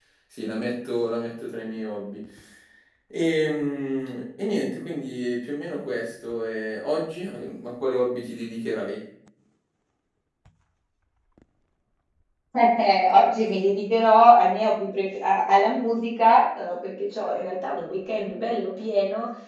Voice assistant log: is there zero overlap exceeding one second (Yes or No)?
Yes